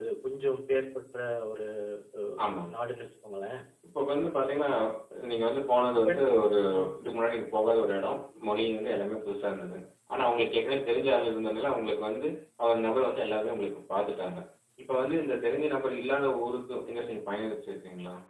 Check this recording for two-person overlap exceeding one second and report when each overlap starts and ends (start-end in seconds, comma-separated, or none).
none